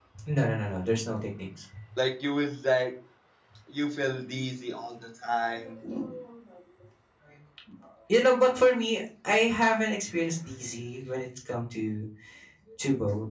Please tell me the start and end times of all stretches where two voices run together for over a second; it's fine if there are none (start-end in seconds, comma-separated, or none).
none